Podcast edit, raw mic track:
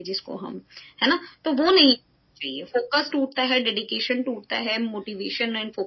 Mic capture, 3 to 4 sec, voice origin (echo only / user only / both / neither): echo only